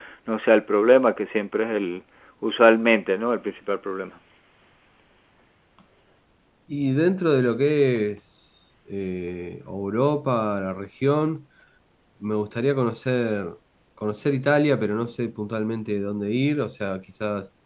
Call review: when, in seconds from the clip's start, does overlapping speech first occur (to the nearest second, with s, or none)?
none